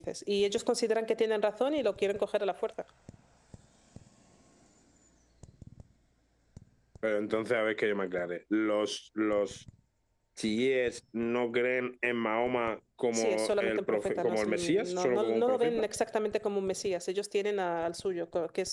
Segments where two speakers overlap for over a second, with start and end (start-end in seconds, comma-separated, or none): 13.1-15.8